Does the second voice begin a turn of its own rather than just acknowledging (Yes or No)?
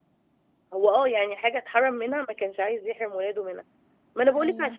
No